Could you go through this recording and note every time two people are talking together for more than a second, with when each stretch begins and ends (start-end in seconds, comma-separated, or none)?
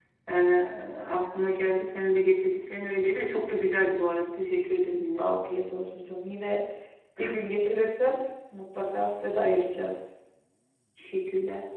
none